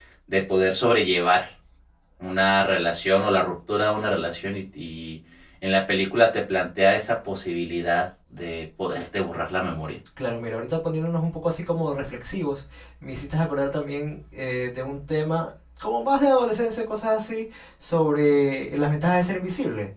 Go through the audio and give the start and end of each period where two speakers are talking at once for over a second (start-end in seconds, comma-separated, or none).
none